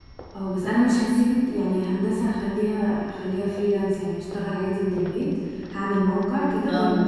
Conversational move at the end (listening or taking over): listening